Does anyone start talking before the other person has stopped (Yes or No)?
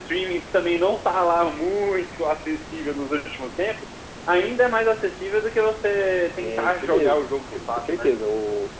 Yes